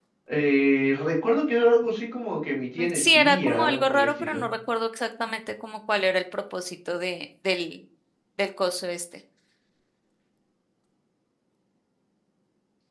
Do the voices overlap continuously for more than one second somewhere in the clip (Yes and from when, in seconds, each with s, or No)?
Yes, from 2.8 s